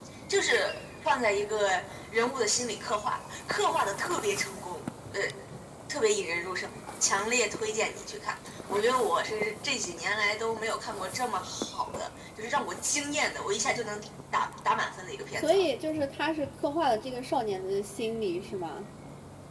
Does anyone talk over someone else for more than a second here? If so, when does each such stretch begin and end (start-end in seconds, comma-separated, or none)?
none